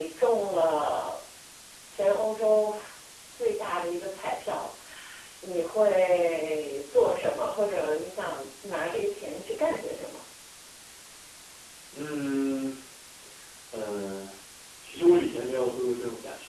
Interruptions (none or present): none